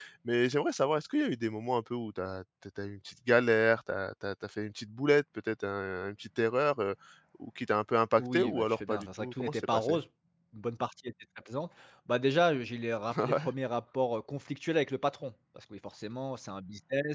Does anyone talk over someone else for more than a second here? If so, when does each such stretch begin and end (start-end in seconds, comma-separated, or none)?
8.2-10.0